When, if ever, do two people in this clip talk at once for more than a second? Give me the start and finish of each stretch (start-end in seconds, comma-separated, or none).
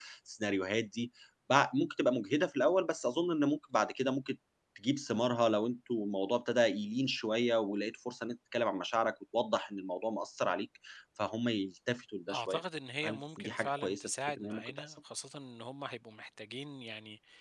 13.0-14.9